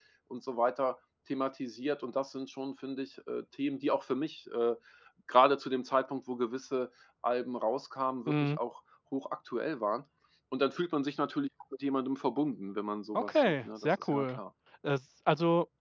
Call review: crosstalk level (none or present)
present